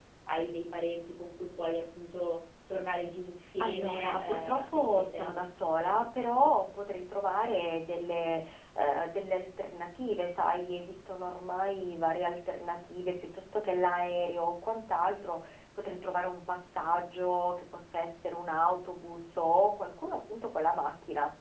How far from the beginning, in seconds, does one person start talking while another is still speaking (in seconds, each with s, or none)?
3.6 s